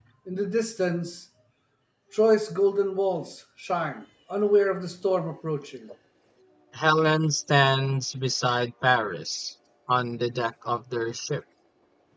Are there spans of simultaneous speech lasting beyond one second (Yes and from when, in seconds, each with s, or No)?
No